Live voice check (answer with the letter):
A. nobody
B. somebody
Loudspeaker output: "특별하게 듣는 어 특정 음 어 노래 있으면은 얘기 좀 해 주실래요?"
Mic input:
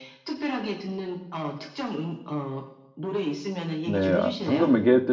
B